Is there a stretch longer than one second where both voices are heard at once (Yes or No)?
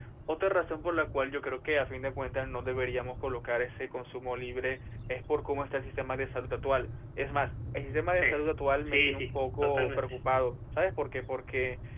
Yes